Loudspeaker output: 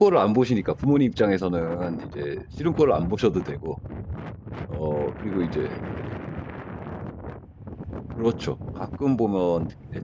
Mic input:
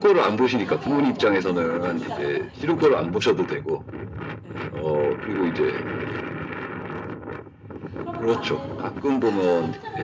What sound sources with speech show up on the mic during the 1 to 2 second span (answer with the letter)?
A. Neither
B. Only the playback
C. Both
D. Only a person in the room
C